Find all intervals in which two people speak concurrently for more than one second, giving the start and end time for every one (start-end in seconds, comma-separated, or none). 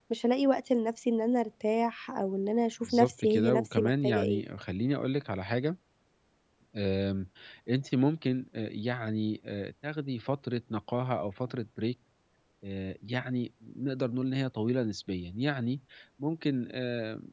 2.8-4.4